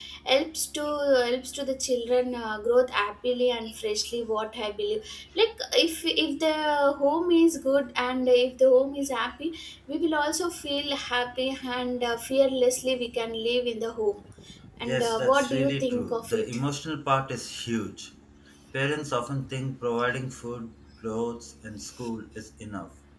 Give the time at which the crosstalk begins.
15 s

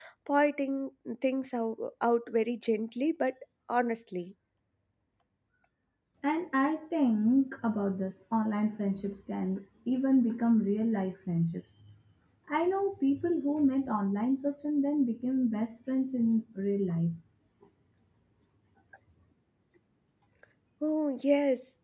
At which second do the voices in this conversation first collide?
none

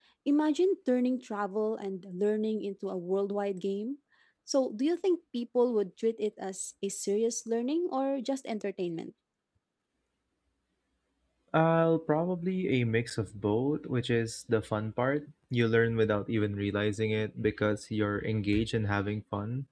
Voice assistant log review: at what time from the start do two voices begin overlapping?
none

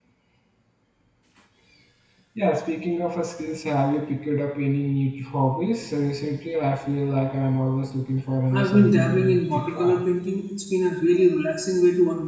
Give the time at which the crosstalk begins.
9 s

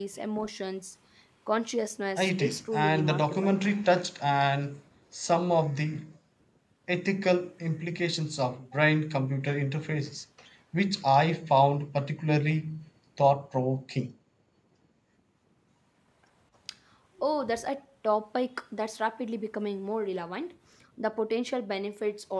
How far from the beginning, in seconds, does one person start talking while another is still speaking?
2 s

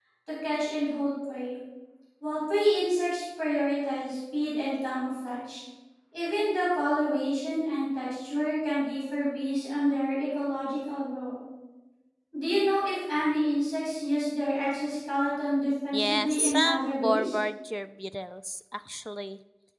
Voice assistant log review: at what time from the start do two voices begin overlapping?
16 s

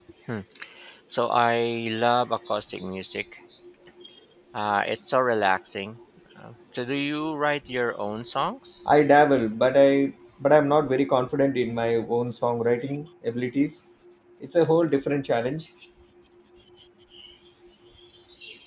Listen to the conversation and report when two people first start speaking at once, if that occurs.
none

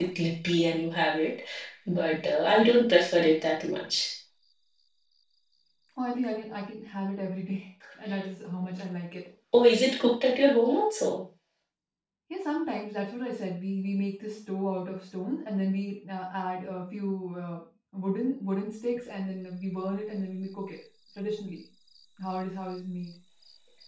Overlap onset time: none

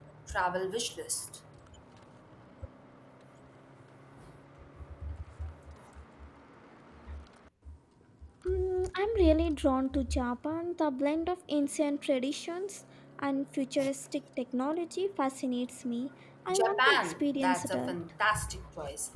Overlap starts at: 16 s

